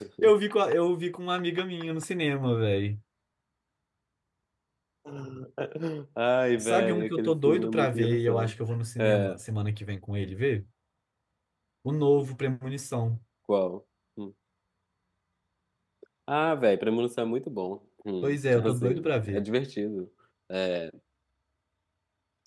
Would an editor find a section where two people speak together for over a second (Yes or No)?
Yes